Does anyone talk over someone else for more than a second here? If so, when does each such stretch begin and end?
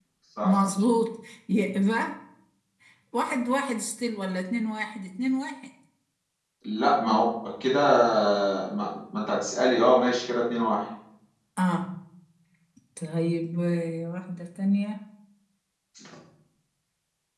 none

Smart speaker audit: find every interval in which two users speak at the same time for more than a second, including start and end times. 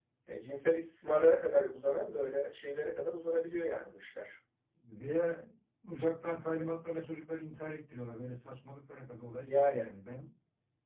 none

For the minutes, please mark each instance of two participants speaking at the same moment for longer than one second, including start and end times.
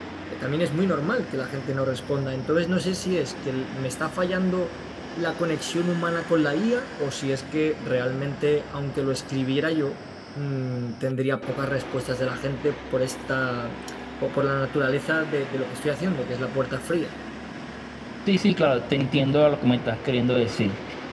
none

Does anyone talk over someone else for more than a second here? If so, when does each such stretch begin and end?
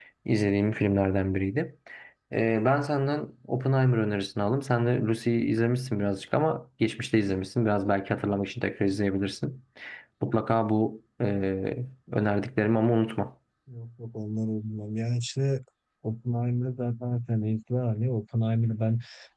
none

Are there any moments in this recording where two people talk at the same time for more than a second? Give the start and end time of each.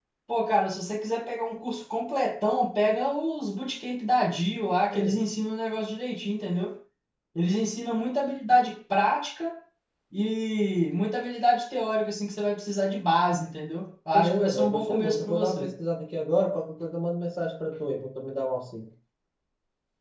14.1-15.7

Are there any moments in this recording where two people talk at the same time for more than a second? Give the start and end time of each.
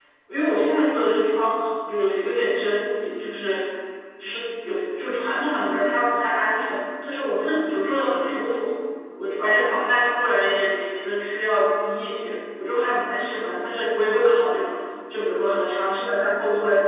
none

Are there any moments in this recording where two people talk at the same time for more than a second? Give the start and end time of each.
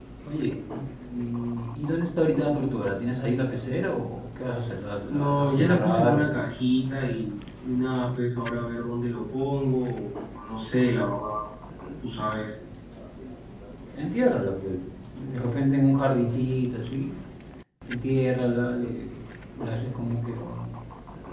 5.1-6.4

